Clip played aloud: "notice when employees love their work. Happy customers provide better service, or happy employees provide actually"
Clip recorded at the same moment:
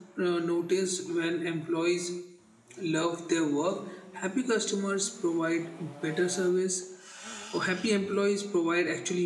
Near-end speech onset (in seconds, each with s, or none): none